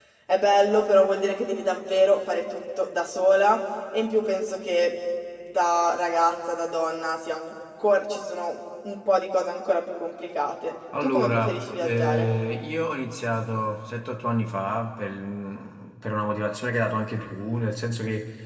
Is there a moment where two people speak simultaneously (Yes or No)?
Yes